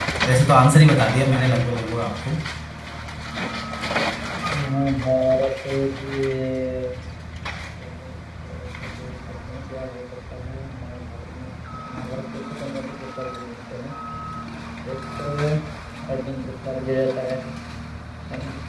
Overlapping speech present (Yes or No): No